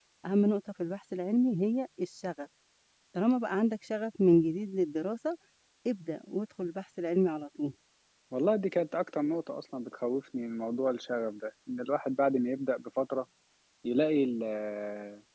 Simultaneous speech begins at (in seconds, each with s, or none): none